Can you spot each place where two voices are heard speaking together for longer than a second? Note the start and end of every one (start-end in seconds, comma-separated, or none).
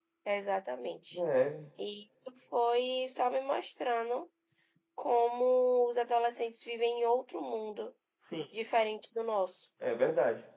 none